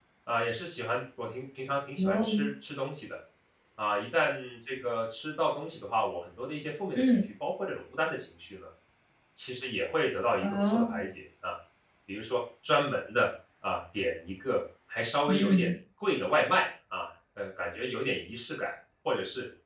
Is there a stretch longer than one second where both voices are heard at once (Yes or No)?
No